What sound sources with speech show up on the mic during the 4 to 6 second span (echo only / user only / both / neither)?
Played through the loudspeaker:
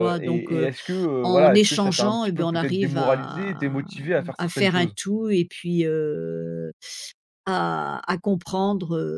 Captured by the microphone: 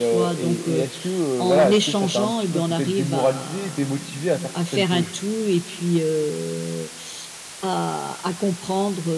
echo only